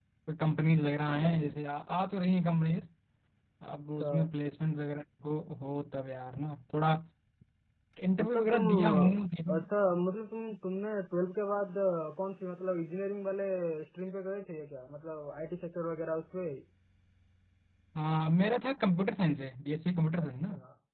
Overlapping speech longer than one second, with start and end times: 8.2-9.6

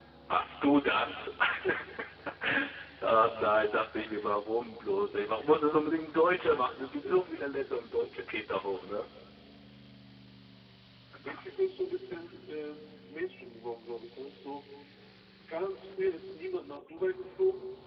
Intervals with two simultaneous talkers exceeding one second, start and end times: none

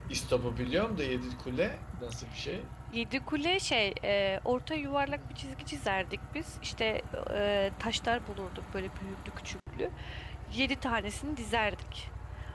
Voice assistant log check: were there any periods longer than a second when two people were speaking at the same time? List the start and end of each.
none

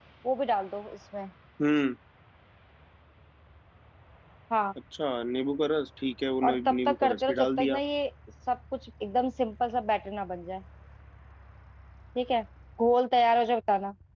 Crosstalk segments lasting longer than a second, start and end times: 6.5-7.8

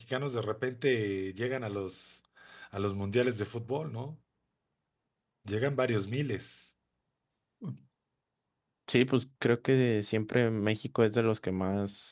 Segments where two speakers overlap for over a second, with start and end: none

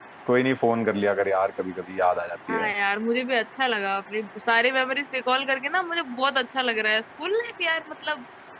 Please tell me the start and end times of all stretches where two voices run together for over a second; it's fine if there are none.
none

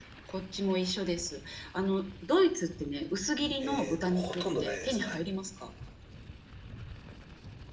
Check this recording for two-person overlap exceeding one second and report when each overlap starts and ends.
3.6-5.2

